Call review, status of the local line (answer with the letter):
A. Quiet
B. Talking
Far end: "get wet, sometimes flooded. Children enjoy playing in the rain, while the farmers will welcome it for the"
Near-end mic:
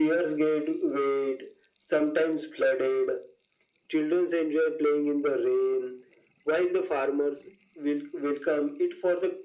A